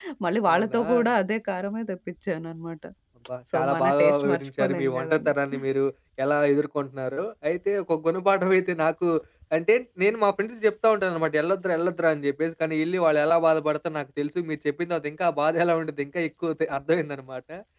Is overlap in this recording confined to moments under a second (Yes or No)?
No